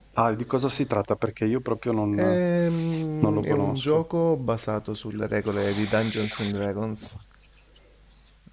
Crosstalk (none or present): present